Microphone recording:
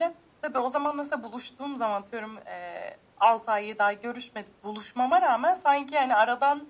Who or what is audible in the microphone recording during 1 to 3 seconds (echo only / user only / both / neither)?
echo only